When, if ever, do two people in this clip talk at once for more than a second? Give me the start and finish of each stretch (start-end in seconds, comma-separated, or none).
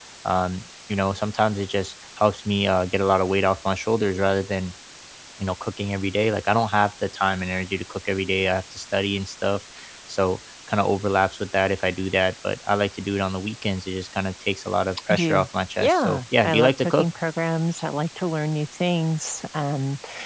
15.8-17.1